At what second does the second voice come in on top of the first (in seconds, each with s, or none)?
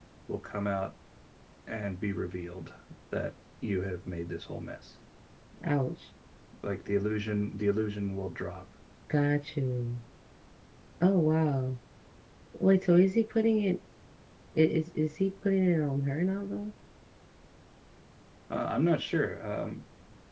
none